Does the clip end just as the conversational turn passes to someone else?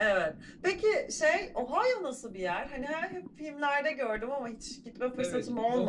Yes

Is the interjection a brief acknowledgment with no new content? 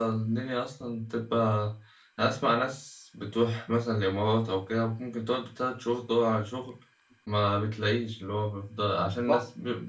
Yes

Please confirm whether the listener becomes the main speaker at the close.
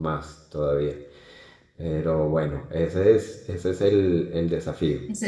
Yes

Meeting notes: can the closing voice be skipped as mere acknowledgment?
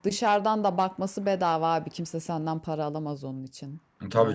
No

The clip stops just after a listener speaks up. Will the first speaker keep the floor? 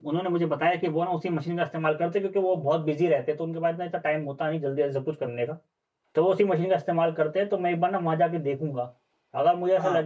Yes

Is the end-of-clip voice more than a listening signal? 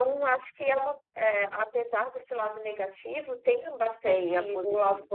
Yes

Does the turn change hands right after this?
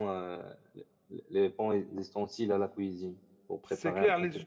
Yes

